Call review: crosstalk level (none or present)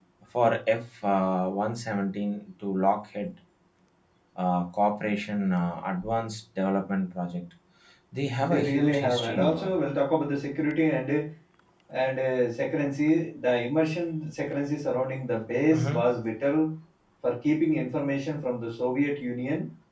present